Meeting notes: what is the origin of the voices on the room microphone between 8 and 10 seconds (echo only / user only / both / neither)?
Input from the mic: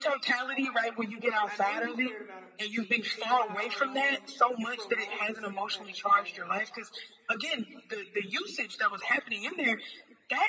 echo only